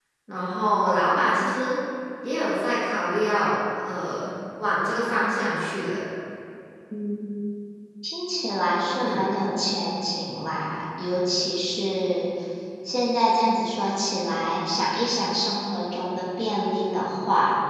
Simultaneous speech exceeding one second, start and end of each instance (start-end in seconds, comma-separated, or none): none